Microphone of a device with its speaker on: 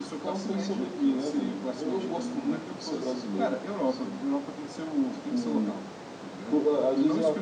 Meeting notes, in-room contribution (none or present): none